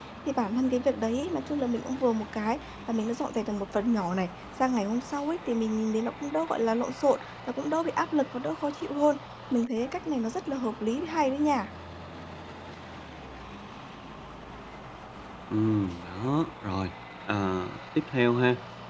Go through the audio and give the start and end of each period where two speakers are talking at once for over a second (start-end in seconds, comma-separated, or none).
none